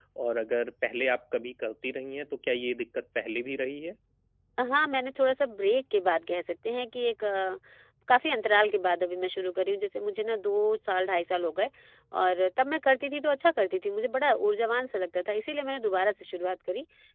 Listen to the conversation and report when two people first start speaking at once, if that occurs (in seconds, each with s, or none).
none